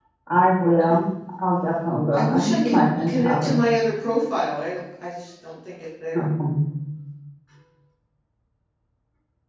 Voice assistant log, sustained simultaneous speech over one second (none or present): present